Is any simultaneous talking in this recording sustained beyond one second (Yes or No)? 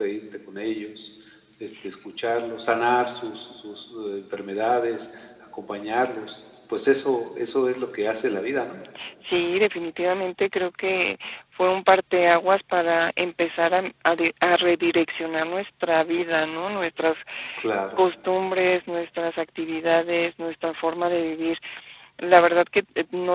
No